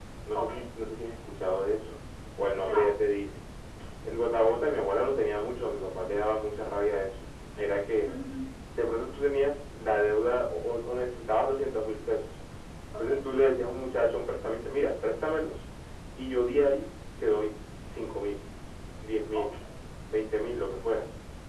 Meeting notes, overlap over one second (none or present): none